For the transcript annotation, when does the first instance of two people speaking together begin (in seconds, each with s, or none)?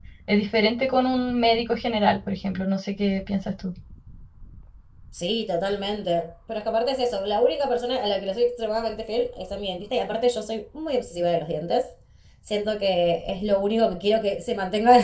none